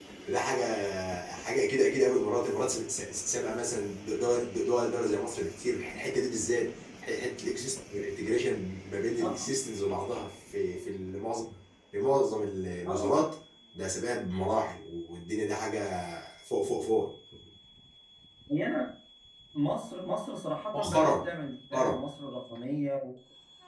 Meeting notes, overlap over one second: none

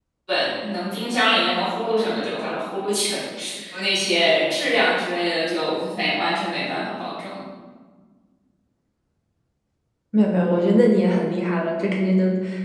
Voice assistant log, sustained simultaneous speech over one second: none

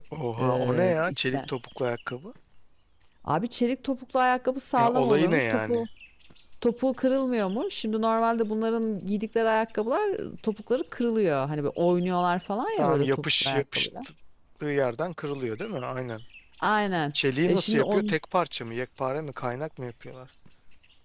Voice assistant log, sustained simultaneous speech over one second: present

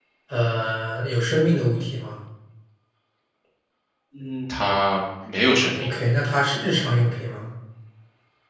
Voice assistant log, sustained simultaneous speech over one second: none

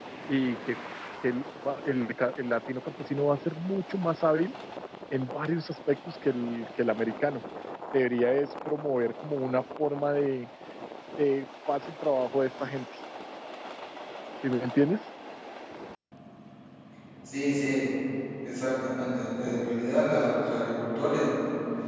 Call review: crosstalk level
none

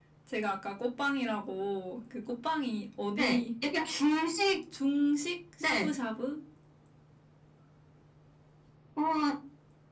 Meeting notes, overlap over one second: none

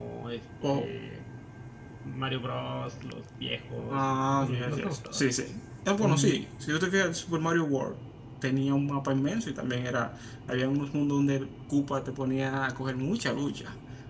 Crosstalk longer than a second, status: present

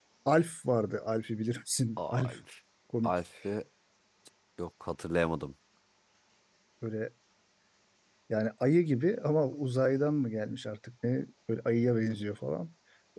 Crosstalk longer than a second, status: none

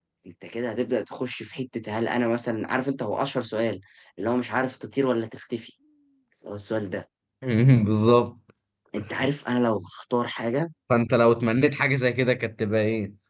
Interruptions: none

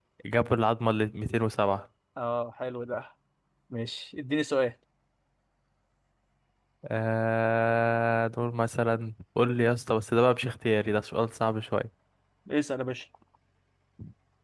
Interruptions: none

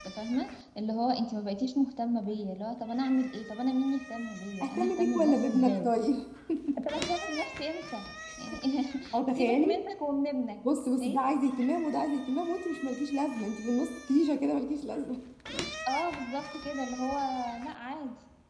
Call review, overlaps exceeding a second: present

